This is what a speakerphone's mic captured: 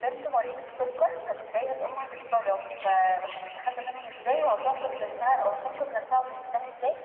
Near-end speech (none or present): none